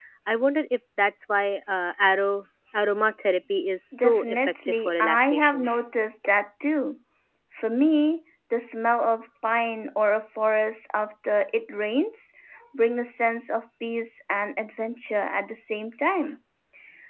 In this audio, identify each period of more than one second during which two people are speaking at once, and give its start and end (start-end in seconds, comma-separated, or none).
3.9-5.6